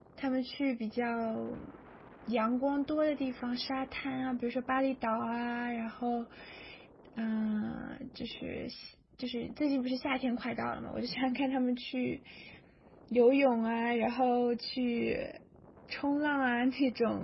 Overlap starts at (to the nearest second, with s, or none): none